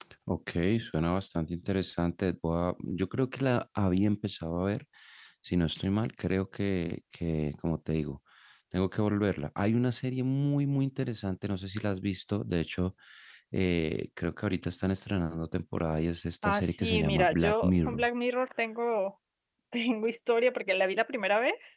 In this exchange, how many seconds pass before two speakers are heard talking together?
16 s

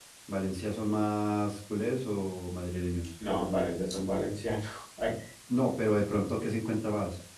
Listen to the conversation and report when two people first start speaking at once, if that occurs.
none

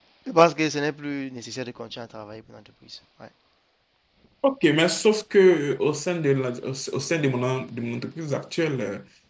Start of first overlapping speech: none

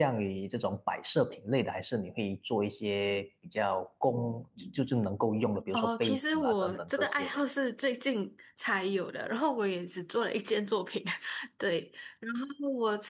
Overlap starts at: 6 s

